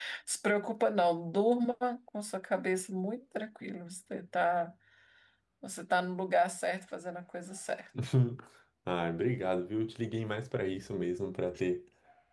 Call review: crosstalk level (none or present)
none